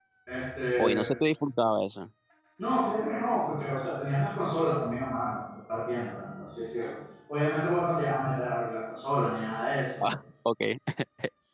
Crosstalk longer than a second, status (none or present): none